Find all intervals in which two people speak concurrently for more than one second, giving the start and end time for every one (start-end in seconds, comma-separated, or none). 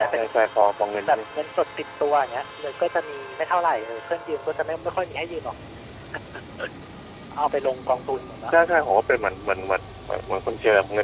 none